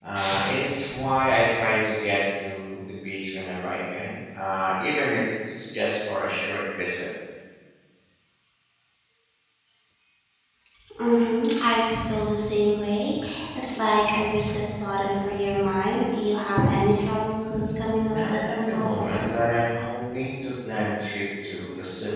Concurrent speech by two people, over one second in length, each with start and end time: 18.0-19.6

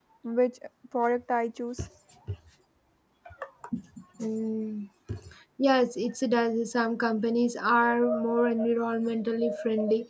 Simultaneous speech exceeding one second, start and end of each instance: none

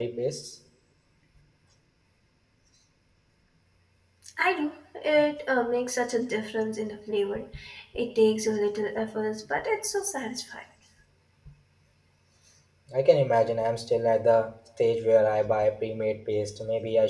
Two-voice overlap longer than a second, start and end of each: none

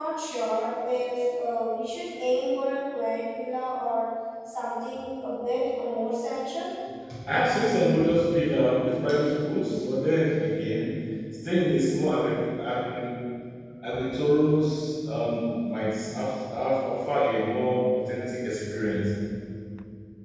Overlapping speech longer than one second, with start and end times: none

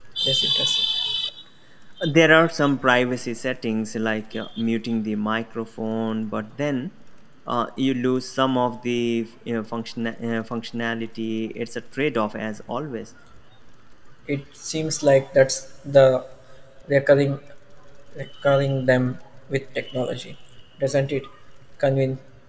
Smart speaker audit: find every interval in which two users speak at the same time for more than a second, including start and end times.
none

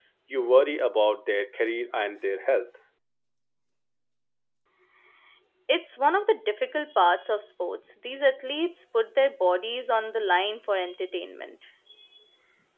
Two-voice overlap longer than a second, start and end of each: none

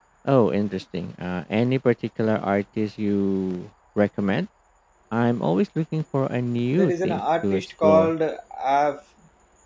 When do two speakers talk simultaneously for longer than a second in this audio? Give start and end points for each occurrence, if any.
6.7-8.1

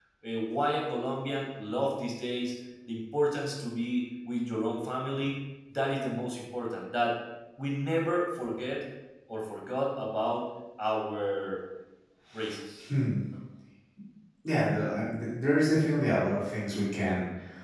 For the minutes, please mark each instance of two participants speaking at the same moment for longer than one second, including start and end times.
none

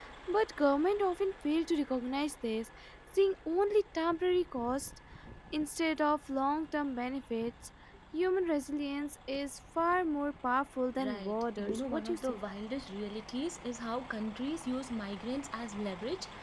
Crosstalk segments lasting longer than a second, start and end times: 11.0-12.4

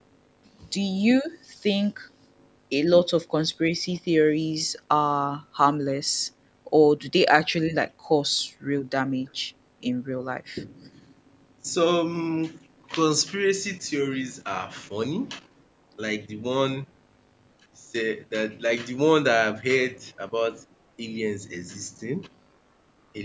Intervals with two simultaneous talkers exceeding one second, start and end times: none

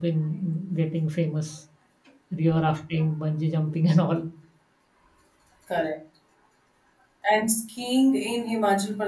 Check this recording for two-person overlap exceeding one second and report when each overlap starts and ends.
none

